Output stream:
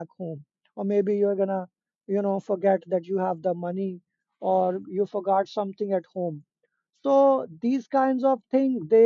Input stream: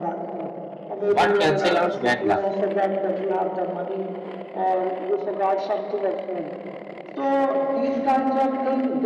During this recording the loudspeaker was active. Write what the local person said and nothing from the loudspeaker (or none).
What cancel out bad luck?